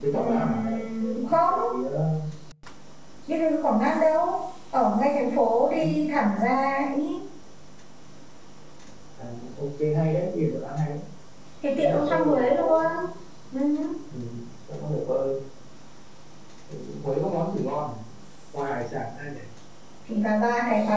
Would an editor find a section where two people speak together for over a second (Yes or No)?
Yes